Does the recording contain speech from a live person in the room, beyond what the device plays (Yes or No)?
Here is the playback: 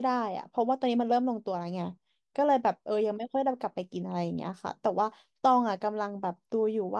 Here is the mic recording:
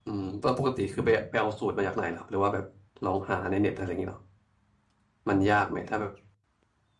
Yes